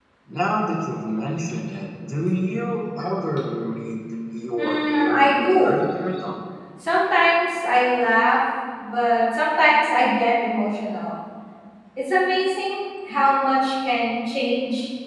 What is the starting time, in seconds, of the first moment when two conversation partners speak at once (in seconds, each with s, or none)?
4.6 s